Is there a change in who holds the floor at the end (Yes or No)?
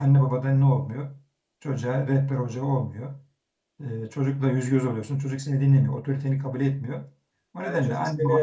Yes